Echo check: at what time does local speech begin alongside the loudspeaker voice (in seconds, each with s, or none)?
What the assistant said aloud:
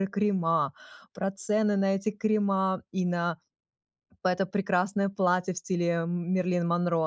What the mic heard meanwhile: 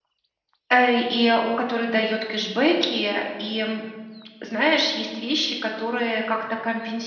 0.7 s